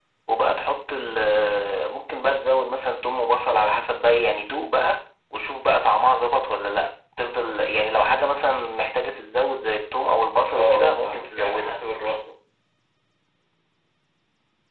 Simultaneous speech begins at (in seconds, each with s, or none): 10.5 s